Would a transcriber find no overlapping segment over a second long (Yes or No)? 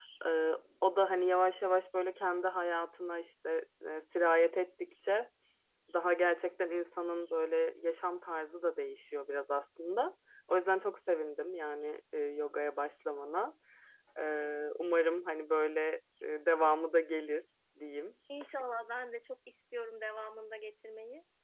Yes